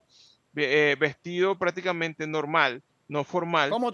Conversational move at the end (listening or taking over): taking over